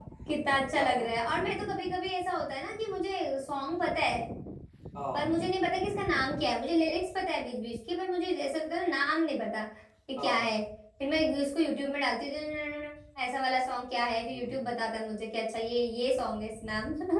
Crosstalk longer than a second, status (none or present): none